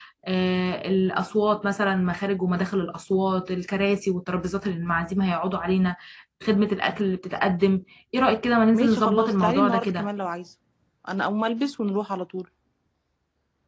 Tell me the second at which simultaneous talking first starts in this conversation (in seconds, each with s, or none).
8.7 s